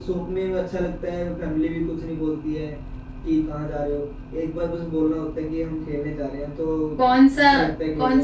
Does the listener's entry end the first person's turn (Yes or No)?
Yes